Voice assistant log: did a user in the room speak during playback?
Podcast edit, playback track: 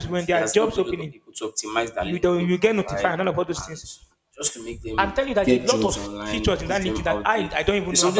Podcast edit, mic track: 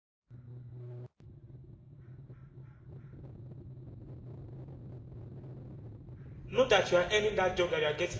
Yes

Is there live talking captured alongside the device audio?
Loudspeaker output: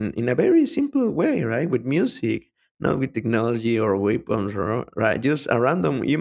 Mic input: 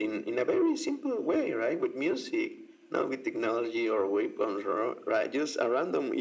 No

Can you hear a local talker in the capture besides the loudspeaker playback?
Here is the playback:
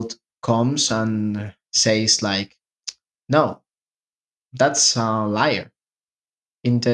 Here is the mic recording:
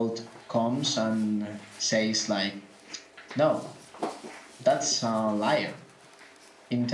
No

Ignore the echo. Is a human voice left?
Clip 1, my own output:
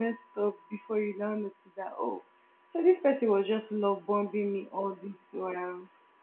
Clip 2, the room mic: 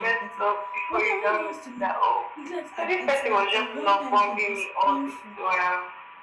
Yes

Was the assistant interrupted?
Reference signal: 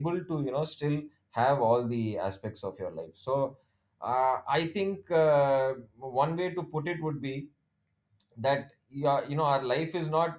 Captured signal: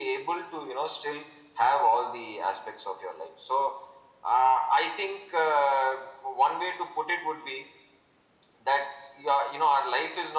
No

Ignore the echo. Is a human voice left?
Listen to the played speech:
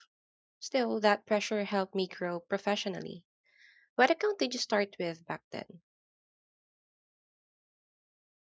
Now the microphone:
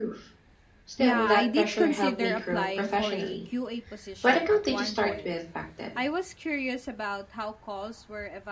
Yes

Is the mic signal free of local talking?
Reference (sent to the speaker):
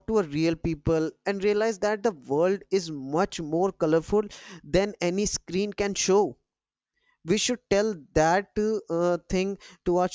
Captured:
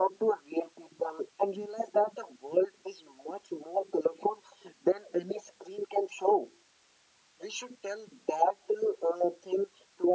Yes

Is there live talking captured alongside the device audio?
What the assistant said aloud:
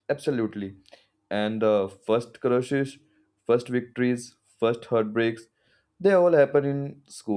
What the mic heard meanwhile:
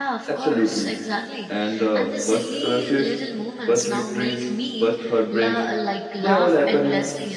Yes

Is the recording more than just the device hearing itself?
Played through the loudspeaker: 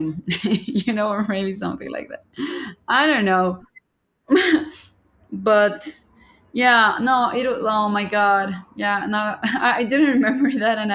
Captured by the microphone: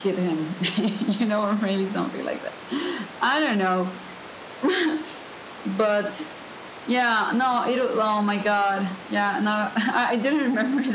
No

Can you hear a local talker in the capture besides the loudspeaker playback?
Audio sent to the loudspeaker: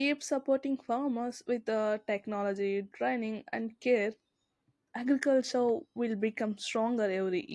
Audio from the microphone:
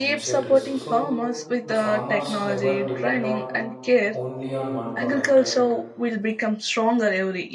Yes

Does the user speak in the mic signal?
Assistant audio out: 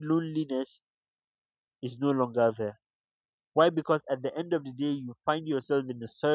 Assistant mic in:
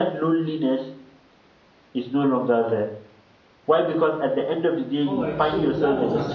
Yes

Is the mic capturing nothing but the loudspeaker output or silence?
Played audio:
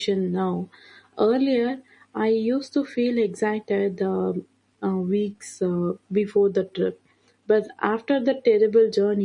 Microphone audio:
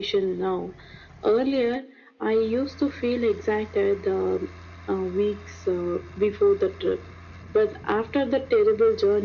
Yes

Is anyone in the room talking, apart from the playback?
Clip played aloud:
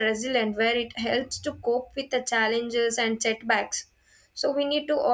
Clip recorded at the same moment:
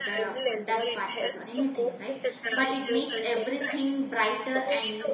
Yes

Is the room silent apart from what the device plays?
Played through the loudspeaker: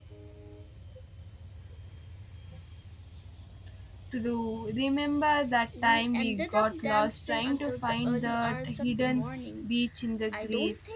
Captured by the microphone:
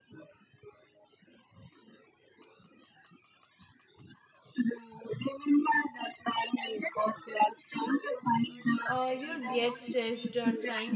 No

